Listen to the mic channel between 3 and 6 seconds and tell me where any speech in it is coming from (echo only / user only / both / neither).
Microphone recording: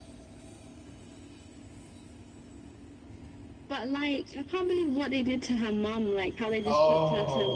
echo only